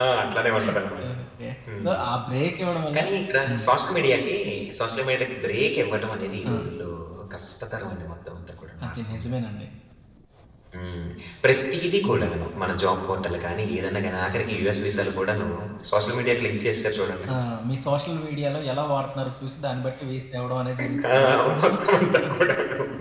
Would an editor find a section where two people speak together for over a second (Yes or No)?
No